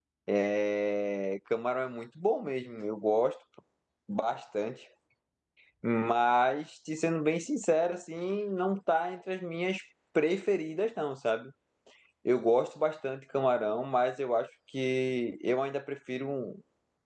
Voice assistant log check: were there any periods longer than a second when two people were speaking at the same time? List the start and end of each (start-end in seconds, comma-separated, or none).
none